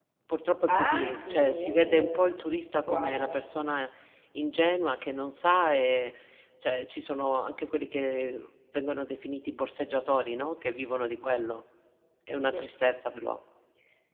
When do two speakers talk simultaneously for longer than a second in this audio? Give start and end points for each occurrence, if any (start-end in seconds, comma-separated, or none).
0.7-2.3